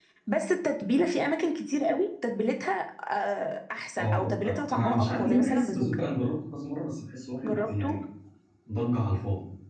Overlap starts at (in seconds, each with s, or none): 4.0 s